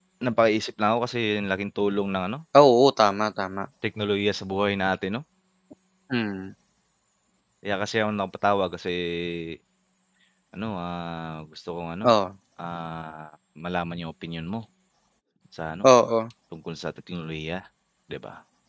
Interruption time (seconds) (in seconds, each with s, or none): none